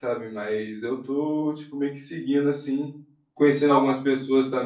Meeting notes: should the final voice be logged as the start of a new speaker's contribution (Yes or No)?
No